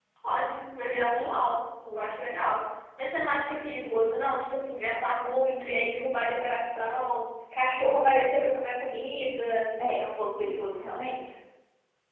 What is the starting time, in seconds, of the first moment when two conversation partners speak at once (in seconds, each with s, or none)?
none